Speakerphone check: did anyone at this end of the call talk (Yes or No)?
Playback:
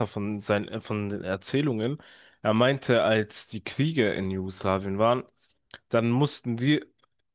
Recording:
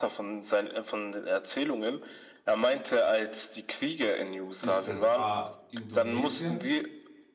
Yes